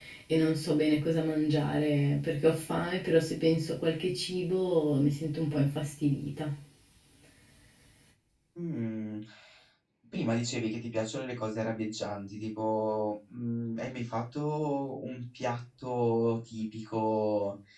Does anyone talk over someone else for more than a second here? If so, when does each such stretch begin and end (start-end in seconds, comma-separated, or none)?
none